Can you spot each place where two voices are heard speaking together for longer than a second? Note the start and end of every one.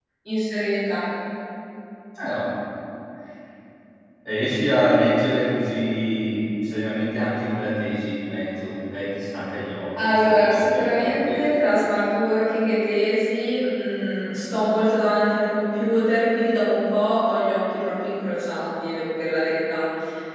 10.0-11.5

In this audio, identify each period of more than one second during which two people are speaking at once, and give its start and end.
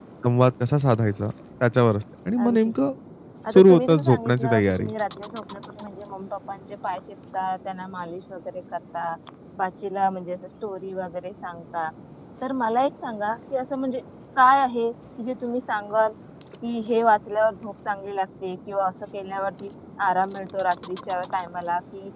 3.5-4.9

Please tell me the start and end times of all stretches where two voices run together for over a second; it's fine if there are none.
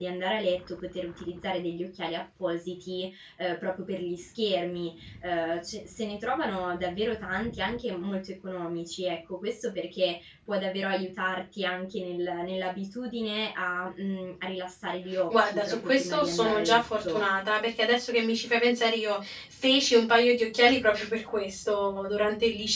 15.3-17.2

